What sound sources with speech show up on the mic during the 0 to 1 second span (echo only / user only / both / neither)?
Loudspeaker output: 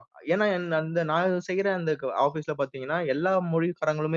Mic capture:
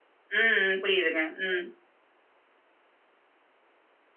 user only